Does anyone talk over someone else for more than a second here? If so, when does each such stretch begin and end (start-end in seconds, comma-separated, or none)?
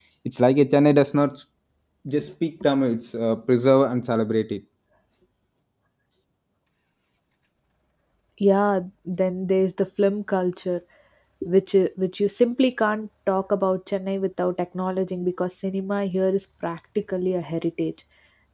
none